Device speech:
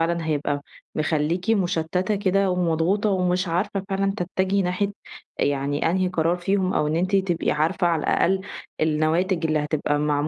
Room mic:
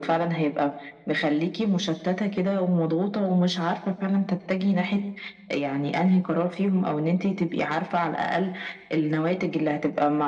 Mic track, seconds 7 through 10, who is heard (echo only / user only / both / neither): echo only